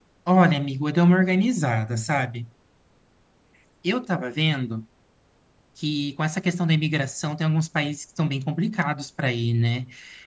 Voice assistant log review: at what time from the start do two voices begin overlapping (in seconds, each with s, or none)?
none